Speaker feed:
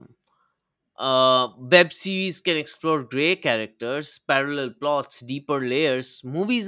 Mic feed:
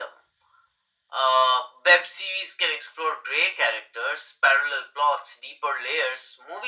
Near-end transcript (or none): none